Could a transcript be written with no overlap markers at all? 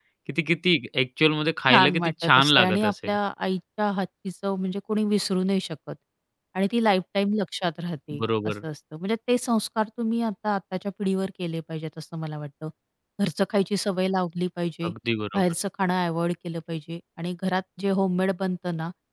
No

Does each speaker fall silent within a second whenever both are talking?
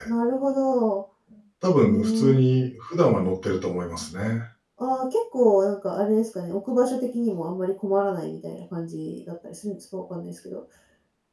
Yes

